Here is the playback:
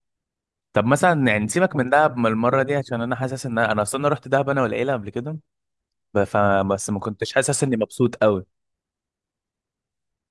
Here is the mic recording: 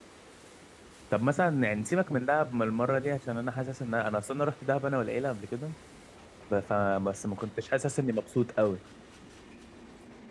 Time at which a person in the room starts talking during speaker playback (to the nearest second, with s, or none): none